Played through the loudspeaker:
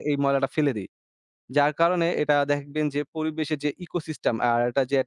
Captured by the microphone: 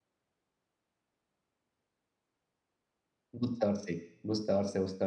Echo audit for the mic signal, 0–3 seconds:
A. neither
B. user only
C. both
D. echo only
A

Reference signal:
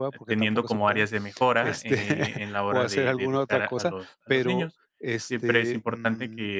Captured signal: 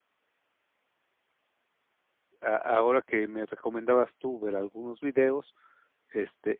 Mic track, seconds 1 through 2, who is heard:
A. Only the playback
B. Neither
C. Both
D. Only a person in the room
B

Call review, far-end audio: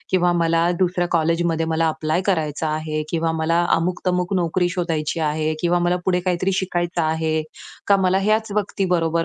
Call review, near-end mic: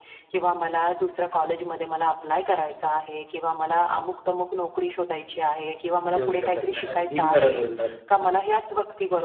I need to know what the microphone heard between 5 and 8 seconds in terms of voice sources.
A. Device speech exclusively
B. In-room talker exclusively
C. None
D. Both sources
D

